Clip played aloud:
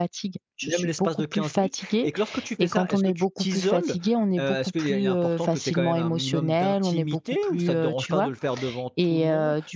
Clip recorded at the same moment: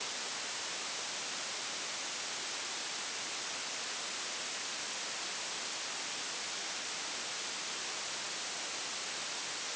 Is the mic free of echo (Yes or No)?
Yes